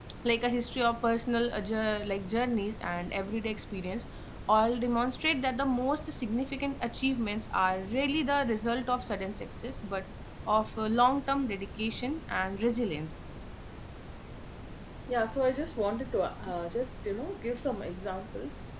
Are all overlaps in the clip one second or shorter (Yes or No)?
Yes